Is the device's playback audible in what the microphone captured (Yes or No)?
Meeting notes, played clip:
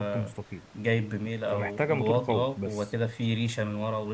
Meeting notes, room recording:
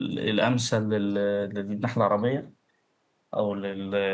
No